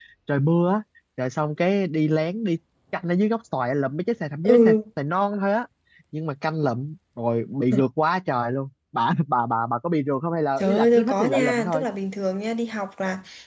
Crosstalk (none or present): present